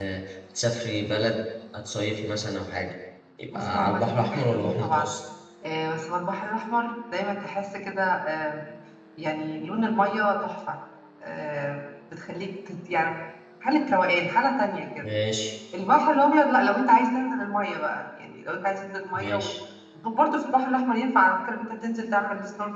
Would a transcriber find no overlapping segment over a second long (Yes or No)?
No